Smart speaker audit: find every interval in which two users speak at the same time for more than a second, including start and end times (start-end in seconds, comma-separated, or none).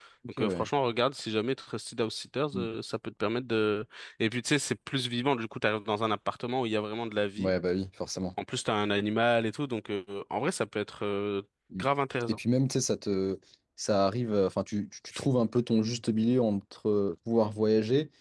none